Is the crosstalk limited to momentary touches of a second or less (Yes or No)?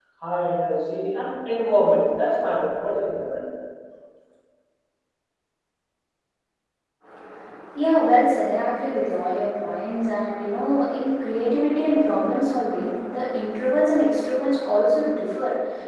Yes